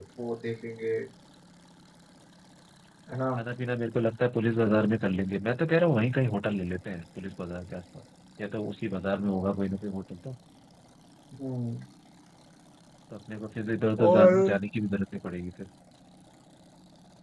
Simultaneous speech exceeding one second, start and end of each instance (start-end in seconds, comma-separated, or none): none